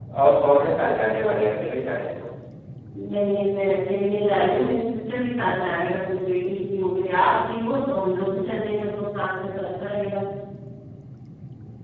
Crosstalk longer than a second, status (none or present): none